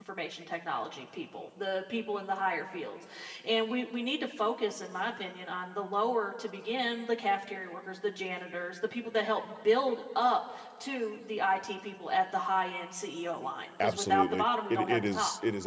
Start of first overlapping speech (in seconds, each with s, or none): 13.8 s